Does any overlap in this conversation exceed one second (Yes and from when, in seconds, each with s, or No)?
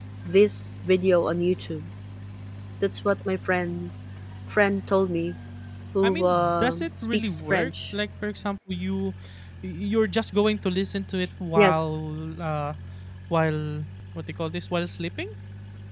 Yes, from 6.0 s